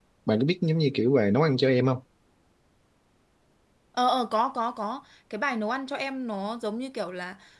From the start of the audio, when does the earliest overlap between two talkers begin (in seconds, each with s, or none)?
none